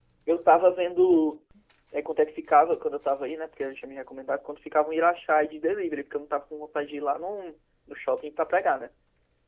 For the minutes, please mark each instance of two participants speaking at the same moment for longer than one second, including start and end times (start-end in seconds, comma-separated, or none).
none